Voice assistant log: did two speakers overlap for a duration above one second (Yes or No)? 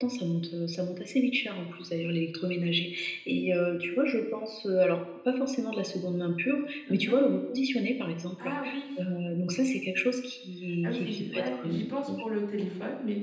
Yes